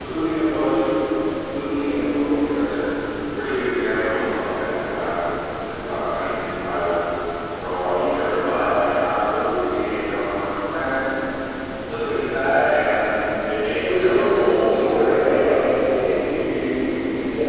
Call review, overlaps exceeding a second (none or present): present